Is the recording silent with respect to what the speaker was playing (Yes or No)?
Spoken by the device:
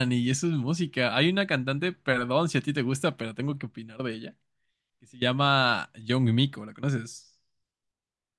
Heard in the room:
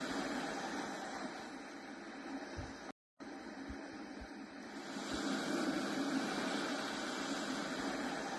Yes